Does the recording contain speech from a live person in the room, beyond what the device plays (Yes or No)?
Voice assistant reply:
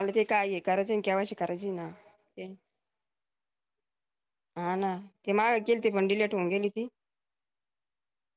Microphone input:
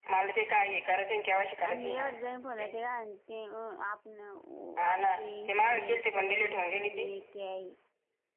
Yes